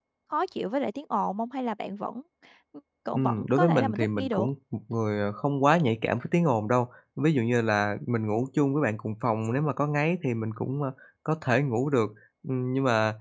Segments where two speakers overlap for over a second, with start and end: 3.1-4.5

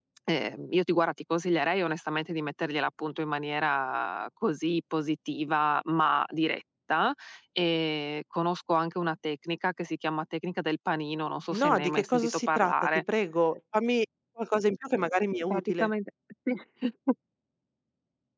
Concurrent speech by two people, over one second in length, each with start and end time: 11.5-13.0

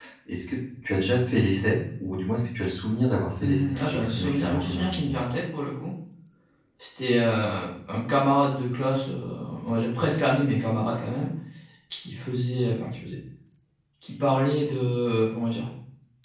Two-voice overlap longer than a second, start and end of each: 3.4-5.2

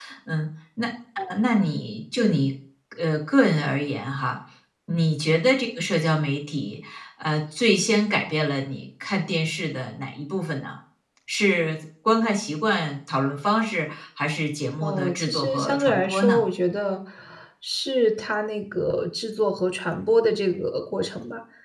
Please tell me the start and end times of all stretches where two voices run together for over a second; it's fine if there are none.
14.8-16.4

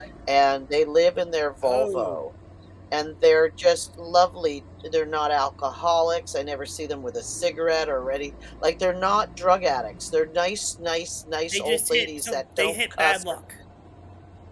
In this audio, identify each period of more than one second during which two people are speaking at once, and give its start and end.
11.5-13.2

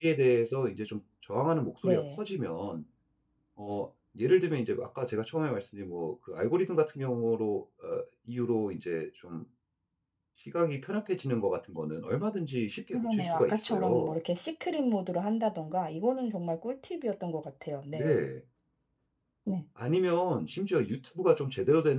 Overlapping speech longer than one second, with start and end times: 12.9-14.1

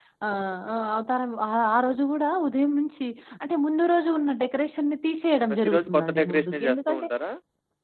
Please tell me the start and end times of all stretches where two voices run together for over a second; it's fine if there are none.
5.6-7.0

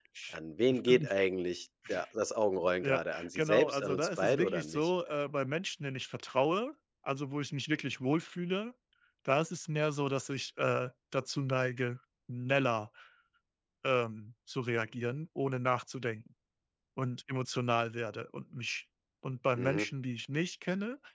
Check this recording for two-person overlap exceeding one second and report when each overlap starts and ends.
2.8-4.9

